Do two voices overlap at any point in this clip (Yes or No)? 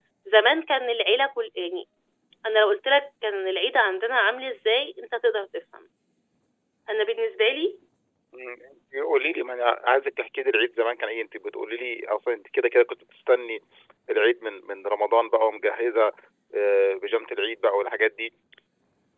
No